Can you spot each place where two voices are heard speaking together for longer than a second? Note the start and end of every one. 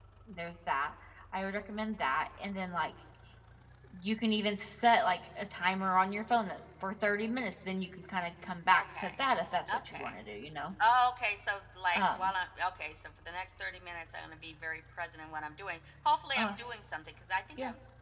none

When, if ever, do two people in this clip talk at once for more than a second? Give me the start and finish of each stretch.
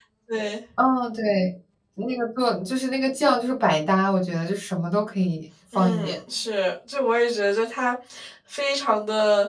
none

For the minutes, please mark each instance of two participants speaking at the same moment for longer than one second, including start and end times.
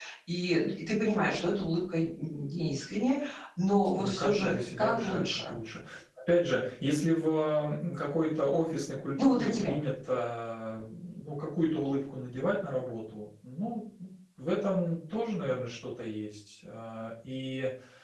4.0-5.5

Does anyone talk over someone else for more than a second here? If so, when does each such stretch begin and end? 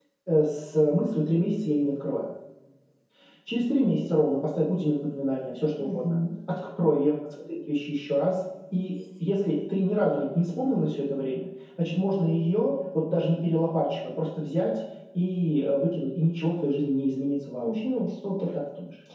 none

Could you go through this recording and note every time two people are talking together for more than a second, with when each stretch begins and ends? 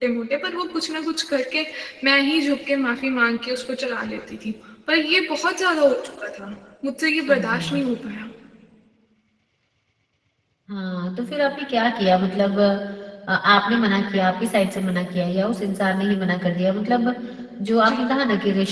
none

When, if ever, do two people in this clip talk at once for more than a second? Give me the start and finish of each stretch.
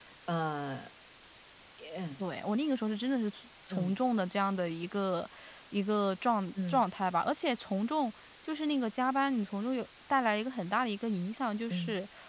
none

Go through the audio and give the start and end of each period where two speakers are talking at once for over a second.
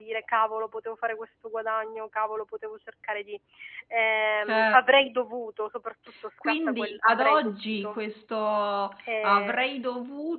6.4-8.0

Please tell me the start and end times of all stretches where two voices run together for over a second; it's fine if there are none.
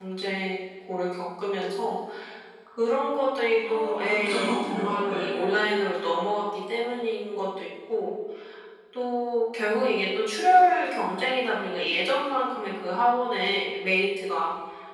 3.6-5.6

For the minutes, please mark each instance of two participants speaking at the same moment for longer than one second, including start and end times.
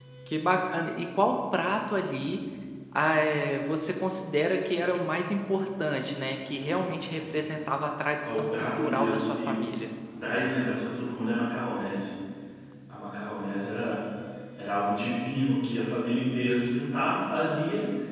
8.2-9.5

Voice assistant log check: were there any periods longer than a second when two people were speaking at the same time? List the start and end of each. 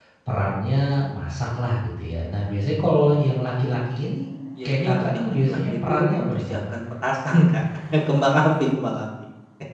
4.7-6.6

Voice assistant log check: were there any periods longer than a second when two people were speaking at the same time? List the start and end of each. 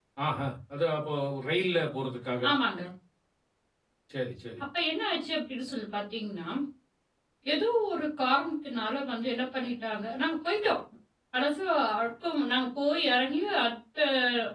none

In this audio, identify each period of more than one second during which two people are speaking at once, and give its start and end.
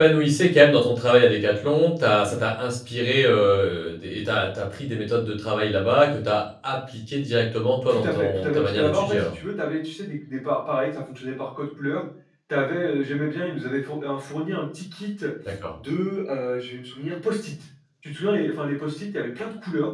7.9-9.3

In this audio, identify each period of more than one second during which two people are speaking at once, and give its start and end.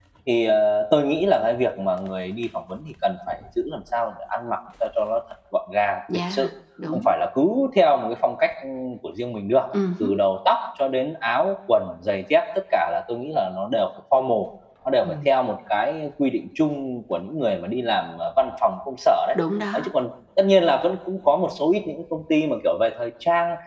none

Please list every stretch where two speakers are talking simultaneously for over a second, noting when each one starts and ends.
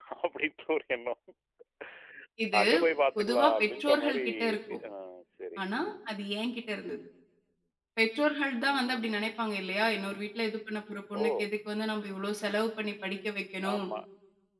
3.2-4.8

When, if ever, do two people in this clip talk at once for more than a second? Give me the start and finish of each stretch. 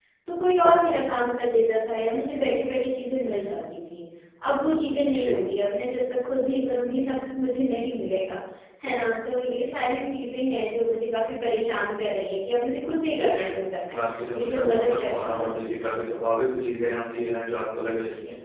14.3-16.0

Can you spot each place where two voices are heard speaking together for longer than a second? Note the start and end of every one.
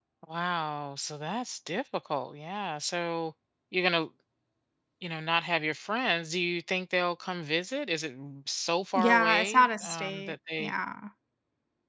8.9-10.7

